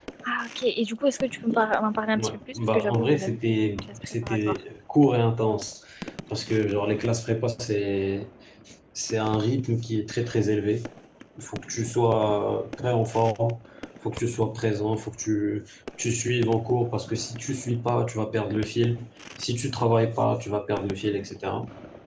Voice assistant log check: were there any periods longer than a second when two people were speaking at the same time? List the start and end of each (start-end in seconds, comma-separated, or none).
2.1-4.5